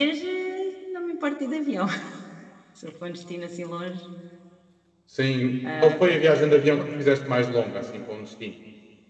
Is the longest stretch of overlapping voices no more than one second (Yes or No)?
Yes